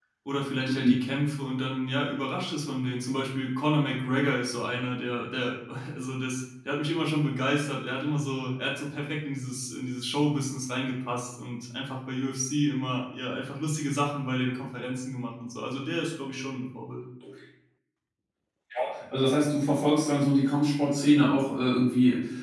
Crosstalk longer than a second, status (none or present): none